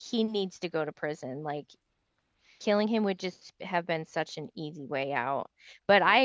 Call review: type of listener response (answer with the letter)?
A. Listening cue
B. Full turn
A